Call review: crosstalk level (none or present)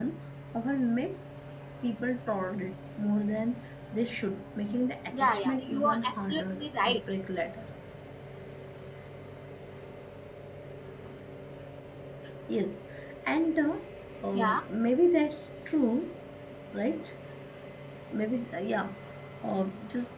present